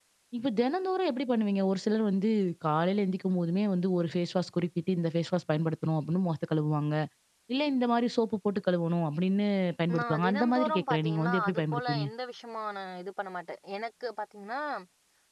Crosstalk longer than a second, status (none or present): present